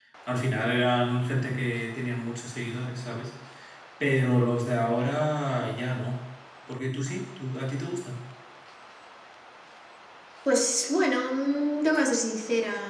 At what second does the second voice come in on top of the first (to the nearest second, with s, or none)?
none